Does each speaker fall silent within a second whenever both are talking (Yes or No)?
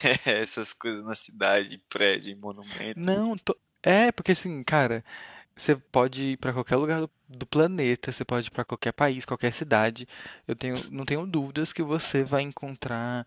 Yes